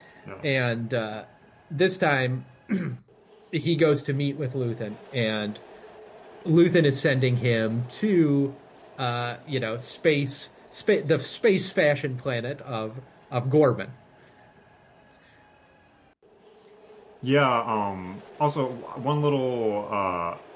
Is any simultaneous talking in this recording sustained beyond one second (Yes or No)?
No